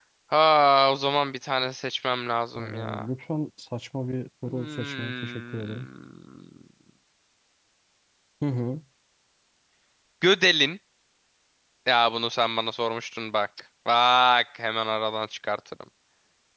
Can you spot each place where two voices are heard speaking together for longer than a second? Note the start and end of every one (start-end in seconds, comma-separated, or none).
4.4-5.9